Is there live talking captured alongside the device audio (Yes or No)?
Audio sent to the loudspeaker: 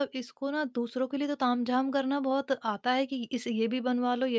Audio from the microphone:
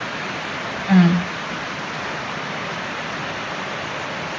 Yes